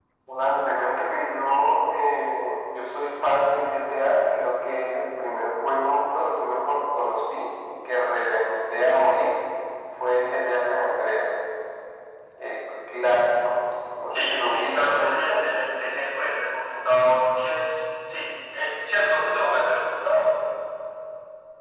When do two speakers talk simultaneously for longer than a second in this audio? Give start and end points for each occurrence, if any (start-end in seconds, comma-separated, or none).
14.1-15.4